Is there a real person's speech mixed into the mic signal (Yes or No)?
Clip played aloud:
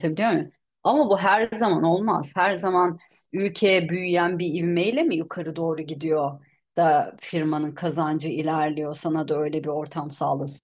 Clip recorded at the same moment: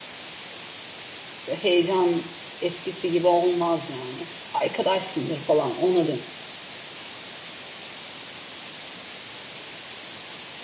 Yes